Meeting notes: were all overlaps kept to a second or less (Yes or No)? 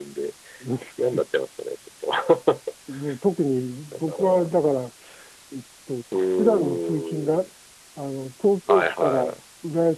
No